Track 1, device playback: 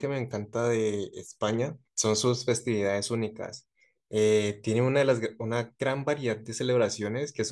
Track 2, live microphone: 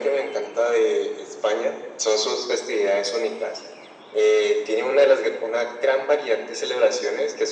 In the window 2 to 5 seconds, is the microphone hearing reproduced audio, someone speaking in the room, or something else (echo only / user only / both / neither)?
echo only